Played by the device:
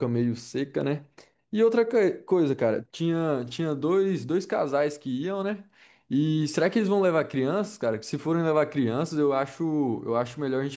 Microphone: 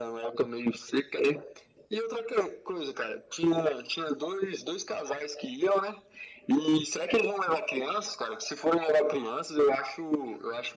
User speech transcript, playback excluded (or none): none